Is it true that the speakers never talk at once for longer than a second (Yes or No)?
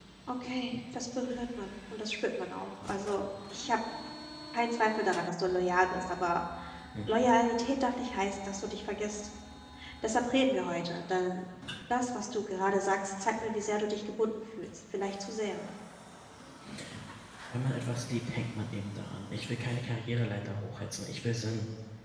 Yes